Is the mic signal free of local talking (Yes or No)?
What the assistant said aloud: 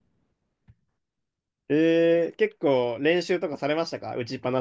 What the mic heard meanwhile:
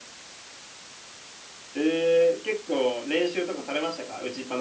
Yes